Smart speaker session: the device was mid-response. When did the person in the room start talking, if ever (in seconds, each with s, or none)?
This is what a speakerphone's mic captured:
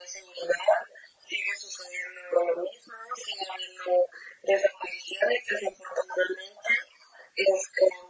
none